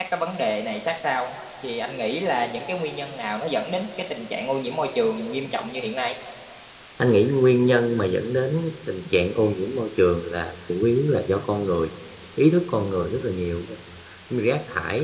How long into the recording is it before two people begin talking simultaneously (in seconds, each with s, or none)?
none